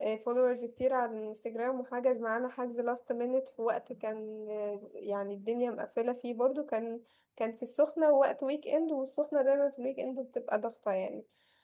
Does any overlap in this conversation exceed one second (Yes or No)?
No